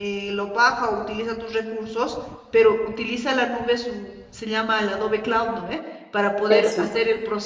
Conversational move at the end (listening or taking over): listening